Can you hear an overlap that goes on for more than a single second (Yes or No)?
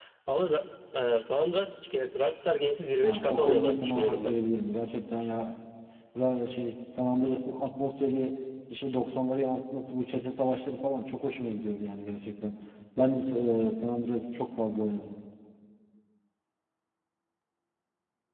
Yes